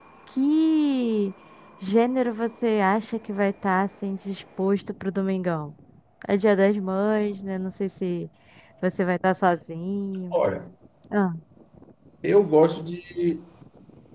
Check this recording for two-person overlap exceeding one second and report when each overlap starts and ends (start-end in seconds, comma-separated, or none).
none